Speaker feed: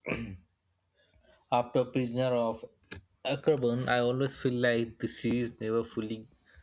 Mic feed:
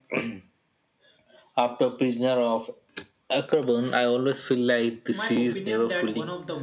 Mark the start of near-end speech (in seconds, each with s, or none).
5.1 s